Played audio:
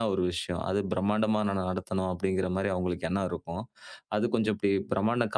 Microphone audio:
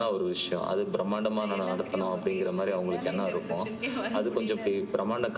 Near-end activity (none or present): present